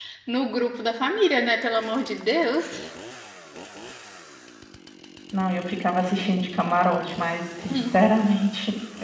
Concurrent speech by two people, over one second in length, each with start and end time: none

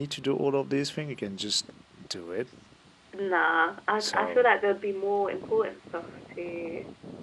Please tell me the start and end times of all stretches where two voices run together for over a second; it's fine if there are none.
none

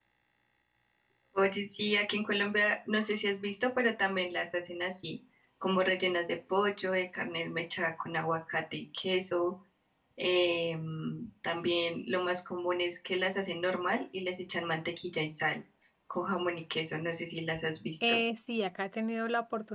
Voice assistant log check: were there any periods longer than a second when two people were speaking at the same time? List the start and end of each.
none

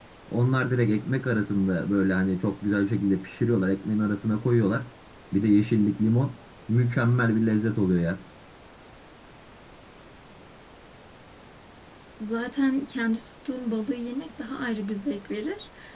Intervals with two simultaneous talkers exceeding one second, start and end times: none

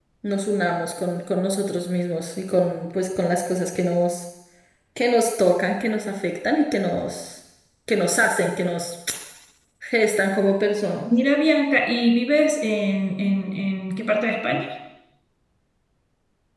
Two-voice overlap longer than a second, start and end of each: none

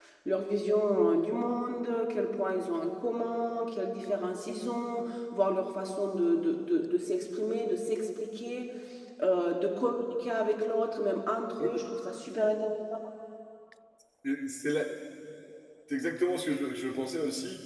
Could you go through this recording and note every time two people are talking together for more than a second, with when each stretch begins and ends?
none

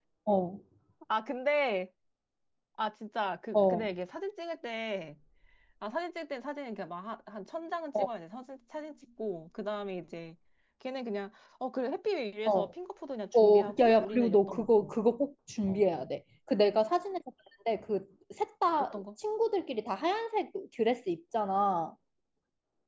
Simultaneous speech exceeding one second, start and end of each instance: 13.4-14.9

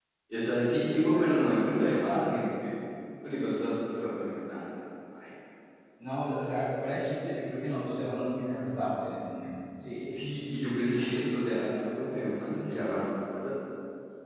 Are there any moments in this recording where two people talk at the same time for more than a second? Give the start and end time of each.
0.7-2.4

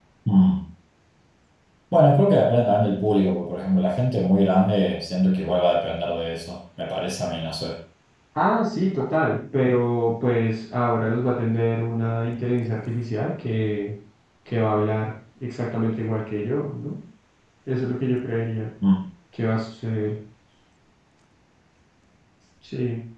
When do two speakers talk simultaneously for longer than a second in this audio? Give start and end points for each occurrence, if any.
none

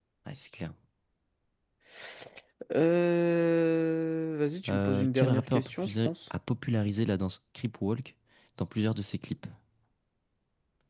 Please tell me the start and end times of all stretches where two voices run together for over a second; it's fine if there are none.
4.7-6.1

